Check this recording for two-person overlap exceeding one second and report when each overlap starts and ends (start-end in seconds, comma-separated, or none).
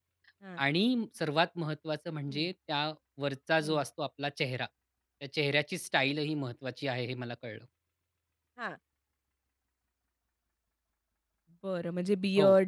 none